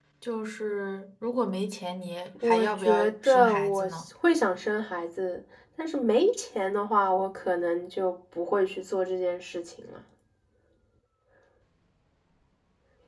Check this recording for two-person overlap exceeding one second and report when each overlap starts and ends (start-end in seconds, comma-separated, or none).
2.4-4.1